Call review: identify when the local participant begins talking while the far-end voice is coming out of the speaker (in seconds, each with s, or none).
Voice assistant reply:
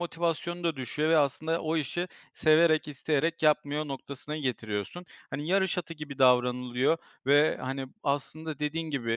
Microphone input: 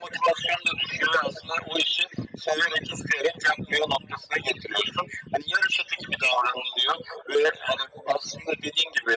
none